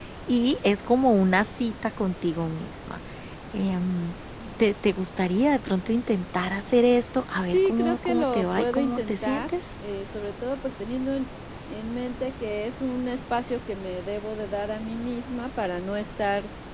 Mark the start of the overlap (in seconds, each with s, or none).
7.5 s